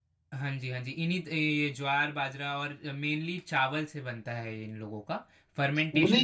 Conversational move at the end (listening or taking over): taking over